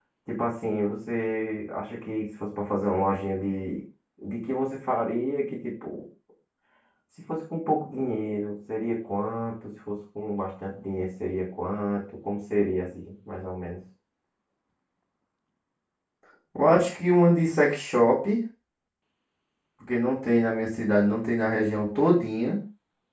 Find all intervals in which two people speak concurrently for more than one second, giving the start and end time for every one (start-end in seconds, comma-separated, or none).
none